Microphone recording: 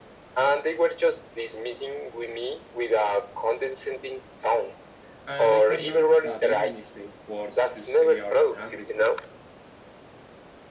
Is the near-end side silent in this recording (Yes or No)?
No